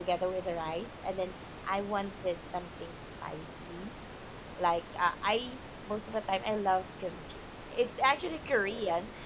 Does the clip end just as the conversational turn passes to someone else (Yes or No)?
No